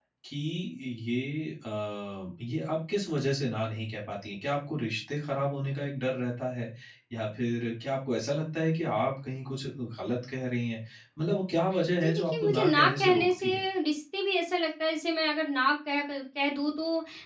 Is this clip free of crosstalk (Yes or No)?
No